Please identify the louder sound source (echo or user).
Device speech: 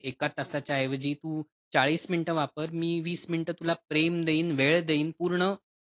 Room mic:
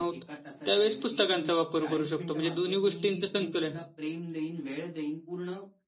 user